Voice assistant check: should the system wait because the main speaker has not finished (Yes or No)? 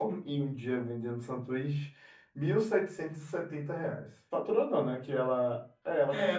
No